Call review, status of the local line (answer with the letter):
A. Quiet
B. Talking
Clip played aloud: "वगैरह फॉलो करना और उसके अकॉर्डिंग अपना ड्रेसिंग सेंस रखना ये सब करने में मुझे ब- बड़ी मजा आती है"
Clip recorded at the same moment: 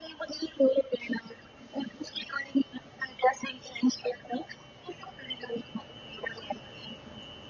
A